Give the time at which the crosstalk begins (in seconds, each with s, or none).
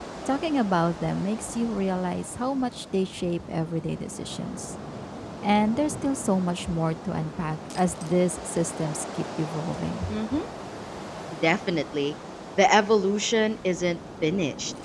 none